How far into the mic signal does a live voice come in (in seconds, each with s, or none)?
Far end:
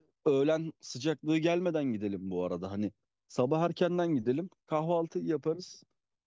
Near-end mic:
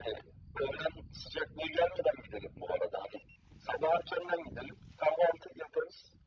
none